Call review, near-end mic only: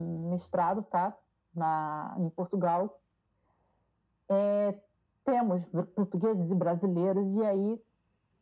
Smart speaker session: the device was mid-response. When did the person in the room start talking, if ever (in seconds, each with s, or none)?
none